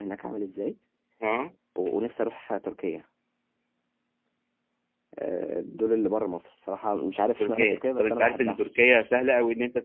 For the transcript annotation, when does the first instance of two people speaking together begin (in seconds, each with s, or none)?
7.4 s